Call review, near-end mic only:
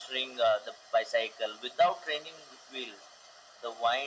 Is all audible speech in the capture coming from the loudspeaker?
Yes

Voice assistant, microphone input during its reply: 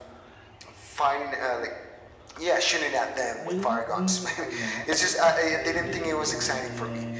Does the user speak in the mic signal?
Yes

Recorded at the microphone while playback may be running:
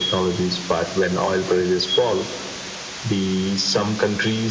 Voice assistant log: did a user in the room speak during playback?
No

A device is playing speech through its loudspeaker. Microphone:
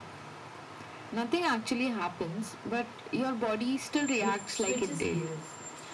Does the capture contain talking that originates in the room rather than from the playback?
Yes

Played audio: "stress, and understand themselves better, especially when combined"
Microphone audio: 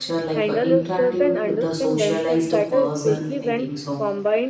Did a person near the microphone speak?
Yes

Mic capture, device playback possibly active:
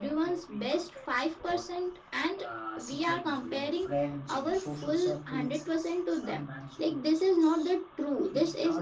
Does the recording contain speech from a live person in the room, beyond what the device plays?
Yes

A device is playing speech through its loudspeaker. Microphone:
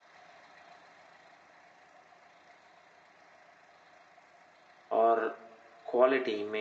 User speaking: Yes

